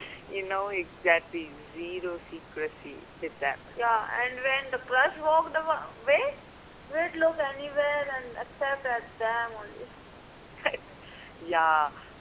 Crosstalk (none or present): none